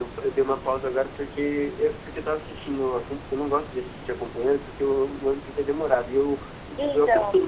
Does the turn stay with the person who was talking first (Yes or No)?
Yes